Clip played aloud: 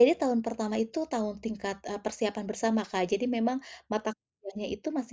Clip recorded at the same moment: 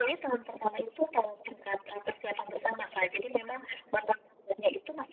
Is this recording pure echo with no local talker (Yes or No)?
Yes